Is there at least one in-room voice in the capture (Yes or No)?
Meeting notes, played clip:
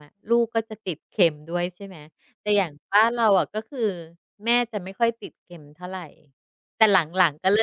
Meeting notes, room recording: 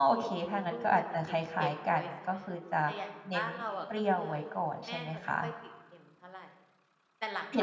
Yes